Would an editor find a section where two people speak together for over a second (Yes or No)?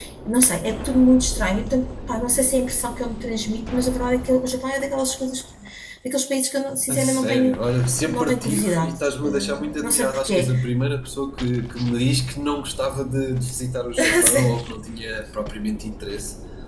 Yes